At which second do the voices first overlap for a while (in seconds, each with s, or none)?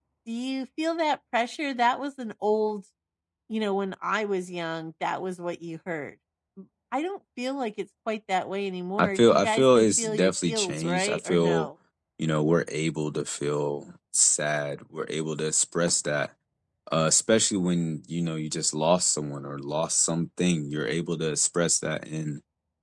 9.0 s